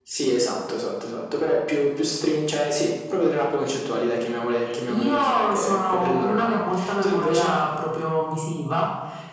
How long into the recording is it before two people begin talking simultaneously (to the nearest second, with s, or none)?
5 s